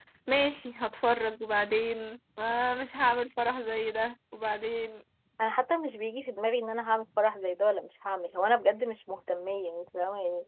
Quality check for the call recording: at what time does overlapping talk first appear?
none

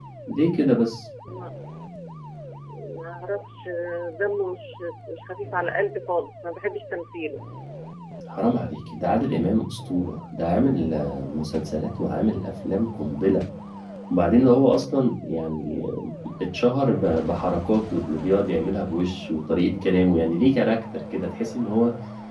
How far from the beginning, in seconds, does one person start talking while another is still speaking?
none

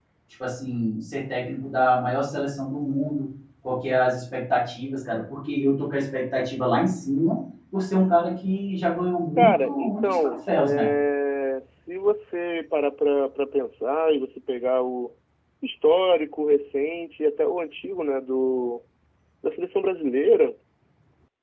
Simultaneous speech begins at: 9.4 s

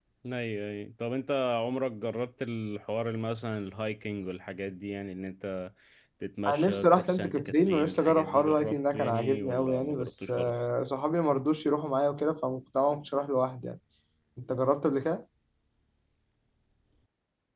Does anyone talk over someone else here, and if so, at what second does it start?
6.5 s

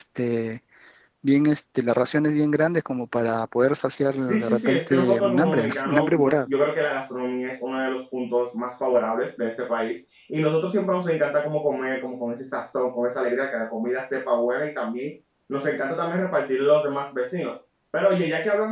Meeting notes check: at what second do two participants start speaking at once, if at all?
4.1 s

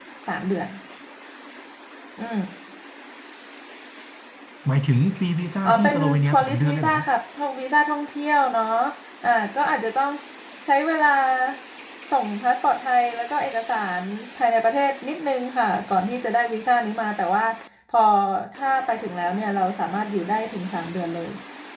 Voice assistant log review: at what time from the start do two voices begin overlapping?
5.6 s

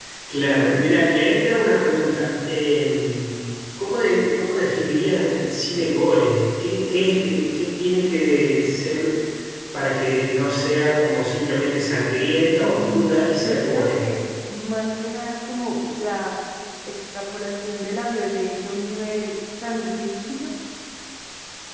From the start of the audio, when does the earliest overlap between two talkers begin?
12.6 s

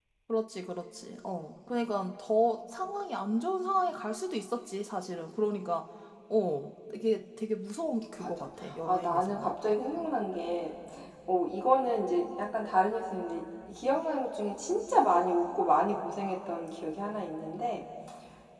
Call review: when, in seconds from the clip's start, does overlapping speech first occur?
8.2 s

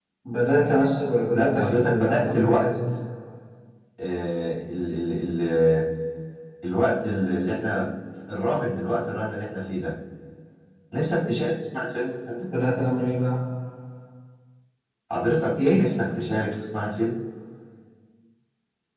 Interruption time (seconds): 1.3 s

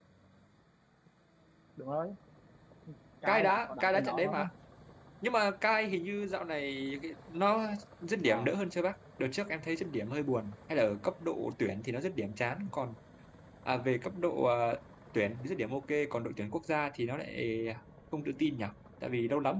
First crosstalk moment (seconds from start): 3.2 s

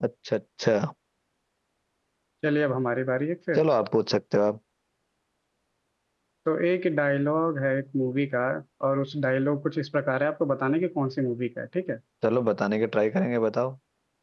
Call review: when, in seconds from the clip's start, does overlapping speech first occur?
none

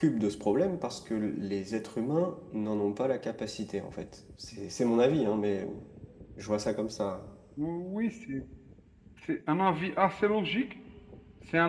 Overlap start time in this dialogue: none

